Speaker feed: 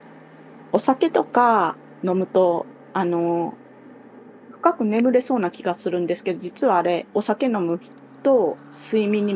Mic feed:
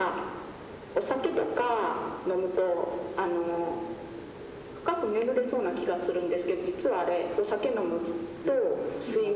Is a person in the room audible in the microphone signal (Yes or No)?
Yes